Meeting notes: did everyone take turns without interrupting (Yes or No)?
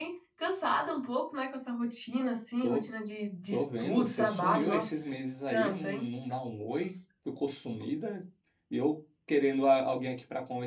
No